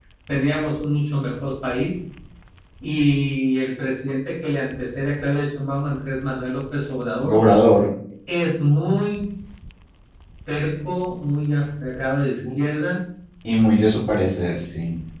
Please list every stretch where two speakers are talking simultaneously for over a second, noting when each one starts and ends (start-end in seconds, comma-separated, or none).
none